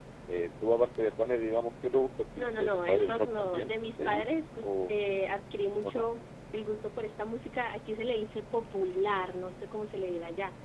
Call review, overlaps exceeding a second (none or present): present